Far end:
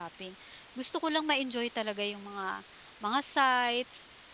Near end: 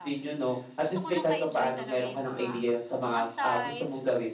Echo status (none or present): present